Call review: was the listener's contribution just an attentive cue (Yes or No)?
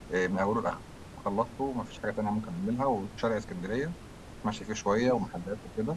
Yes